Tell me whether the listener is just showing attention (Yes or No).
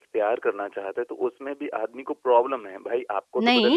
No